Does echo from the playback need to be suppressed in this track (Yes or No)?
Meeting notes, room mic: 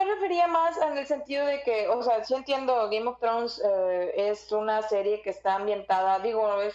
Yes